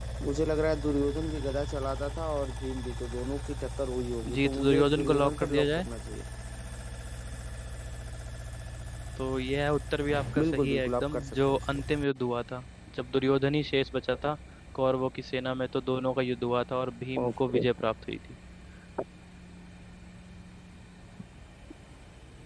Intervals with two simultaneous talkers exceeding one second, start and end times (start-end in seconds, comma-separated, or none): 4.4-5.9, 10.4-11.7